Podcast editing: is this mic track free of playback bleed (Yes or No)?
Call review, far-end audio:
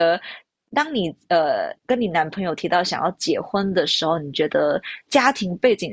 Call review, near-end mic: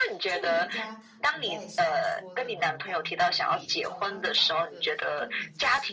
No